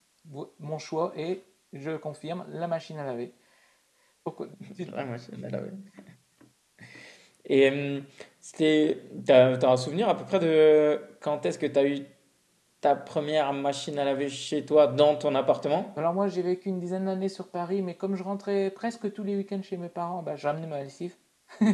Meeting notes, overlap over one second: none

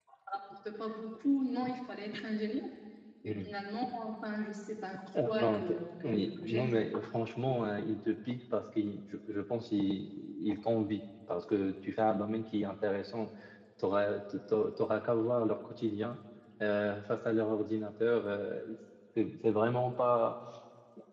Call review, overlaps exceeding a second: present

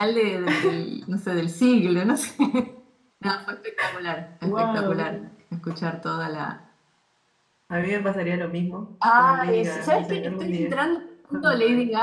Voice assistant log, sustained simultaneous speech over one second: present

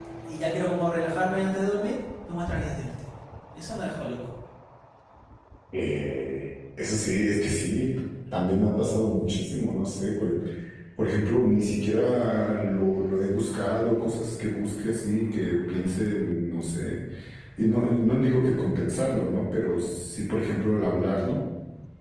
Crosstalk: none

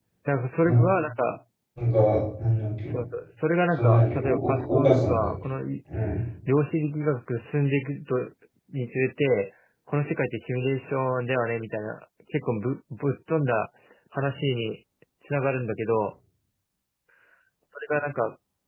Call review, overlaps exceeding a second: present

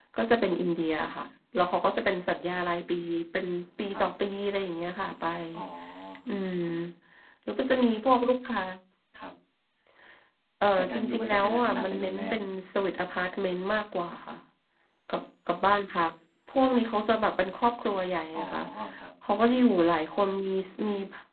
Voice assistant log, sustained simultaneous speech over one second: present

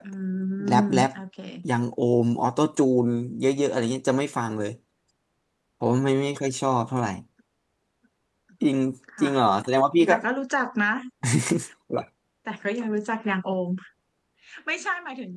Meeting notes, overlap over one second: none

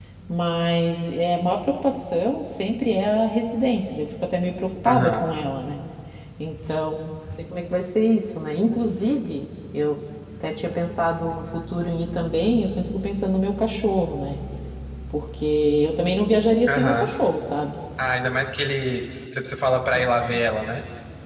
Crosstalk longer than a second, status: none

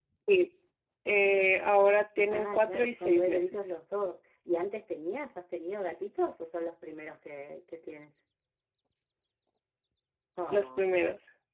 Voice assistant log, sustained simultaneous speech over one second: present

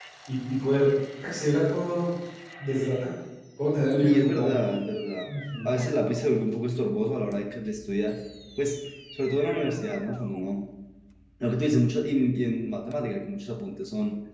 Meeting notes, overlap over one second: none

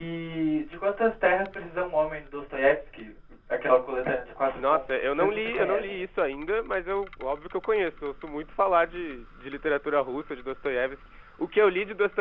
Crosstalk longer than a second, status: present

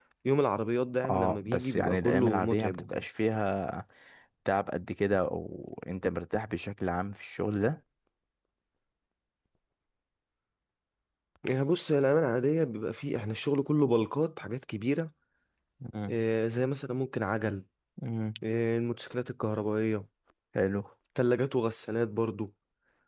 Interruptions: present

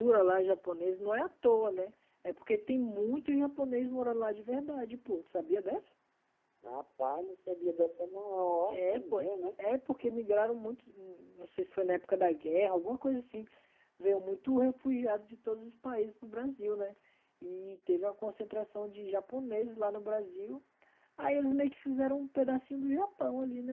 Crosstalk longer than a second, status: none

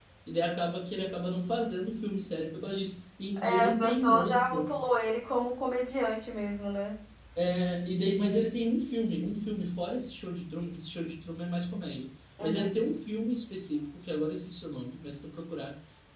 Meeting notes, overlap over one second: present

